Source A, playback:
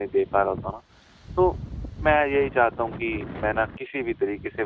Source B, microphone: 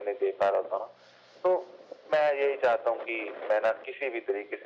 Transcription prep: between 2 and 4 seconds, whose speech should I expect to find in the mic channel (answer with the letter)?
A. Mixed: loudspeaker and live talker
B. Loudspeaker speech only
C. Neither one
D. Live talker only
B